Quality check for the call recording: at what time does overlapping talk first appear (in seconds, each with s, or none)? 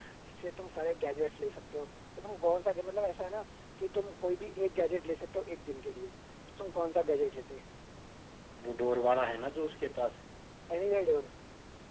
none